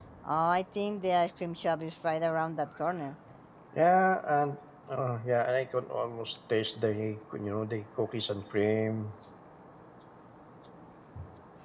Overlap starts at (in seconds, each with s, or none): none